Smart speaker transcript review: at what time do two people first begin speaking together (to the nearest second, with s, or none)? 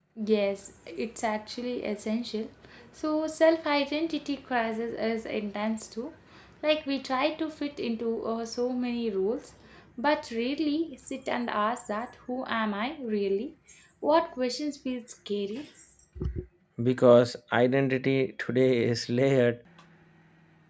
none